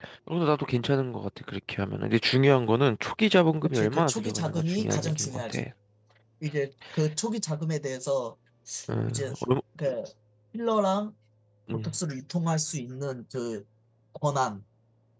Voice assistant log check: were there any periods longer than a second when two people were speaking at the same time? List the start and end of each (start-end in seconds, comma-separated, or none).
3.6-5.7